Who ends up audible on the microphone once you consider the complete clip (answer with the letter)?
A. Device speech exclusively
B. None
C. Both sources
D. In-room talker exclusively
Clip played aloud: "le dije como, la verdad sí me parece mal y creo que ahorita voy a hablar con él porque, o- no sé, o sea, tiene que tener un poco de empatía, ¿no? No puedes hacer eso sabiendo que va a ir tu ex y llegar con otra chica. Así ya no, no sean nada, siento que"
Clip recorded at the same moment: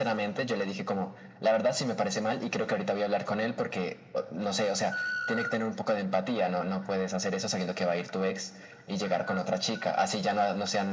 A